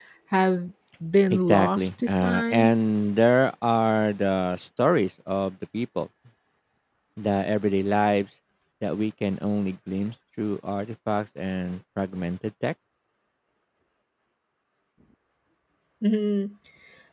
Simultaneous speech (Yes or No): Yes